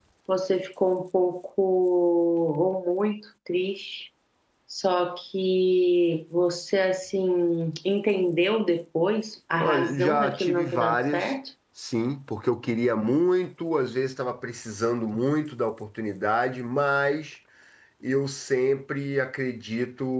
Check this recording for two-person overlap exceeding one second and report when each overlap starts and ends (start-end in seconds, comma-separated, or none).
9.6-11.3